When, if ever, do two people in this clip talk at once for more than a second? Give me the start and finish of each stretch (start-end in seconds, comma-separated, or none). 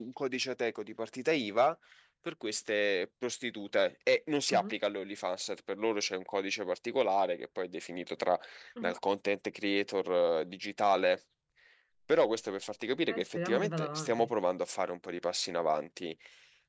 13.1-14.3